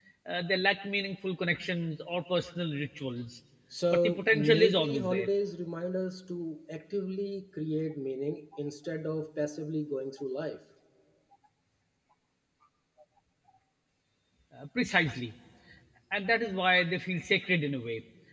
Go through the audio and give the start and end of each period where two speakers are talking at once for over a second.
3.9-5.3

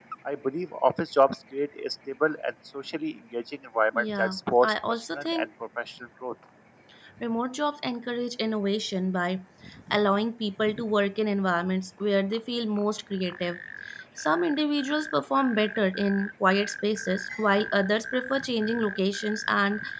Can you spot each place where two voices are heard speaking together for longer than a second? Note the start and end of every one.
3.9-5.5

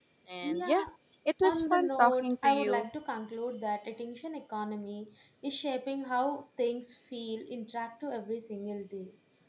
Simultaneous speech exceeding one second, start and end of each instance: 1.5-2.9

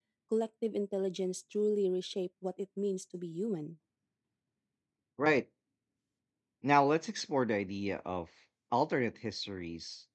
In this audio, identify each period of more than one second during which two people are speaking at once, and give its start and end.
none

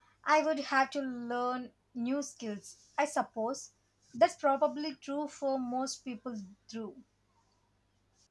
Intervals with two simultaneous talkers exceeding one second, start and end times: none

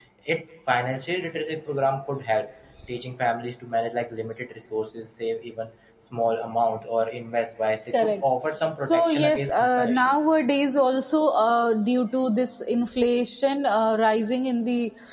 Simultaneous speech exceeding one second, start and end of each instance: 8.9-10.1

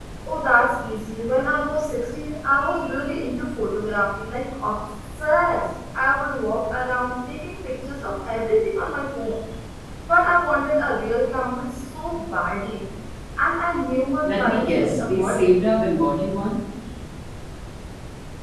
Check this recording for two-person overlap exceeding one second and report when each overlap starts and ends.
14.2-15.5

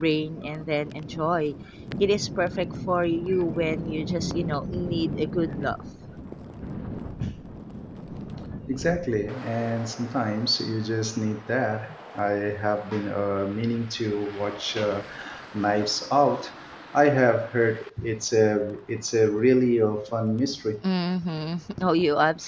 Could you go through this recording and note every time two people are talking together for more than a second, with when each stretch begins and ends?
none

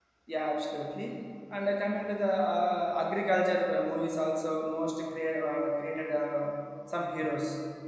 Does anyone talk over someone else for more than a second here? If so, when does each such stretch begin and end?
none

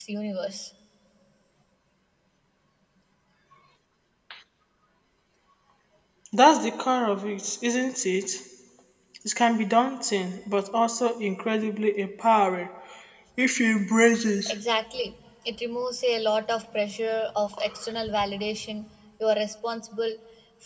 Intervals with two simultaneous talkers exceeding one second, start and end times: none

